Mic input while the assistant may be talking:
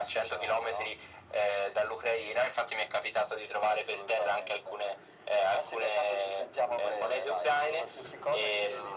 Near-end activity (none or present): none